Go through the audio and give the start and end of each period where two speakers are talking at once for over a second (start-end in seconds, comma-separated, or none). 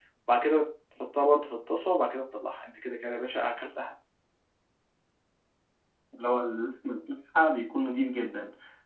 none